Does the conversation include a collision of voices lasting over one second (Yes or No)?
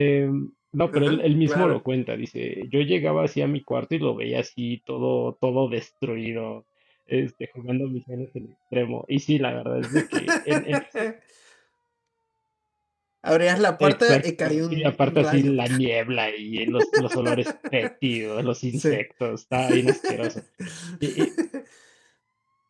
Yes